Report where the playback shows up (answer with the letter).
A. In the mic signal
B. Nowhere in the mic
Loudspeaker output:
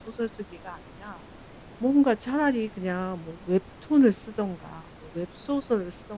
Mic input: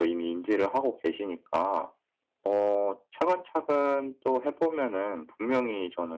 B